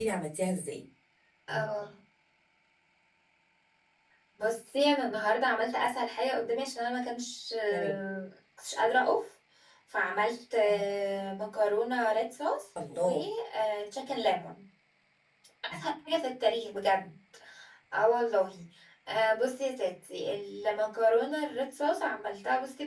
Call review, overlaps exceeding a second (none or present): none